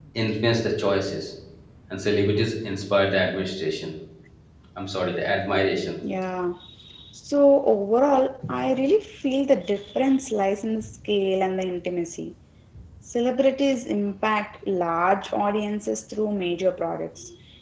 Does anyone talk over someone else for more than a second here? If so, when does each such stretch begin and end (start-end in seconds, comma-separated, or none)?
none